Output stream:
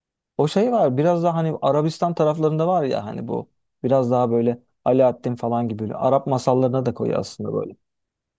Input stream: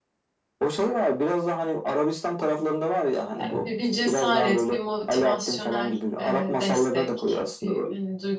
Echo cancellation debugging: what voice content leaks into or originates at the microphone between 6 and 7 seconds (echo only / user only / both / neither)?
both